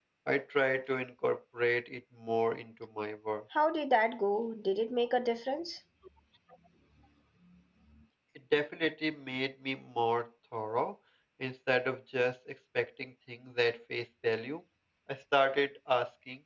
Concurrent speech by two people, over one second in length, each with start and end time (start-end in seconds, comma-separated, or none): none